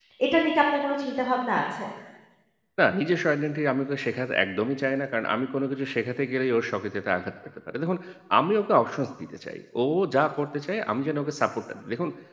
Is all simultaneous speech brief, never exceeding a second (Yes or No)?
Yes